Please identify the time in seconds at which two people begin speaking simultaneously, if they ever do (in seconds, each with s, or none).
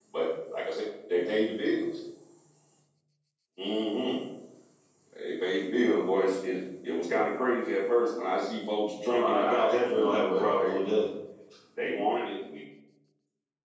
9.1 s